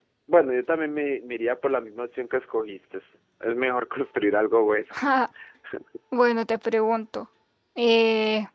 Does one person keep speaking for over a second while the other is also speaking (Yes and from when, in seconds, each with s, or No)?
No